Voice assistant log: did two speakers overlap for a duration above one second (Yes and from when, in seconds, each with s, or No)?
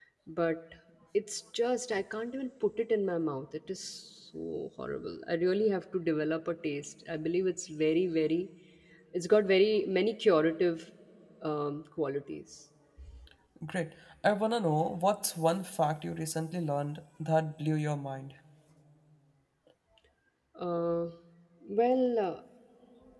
No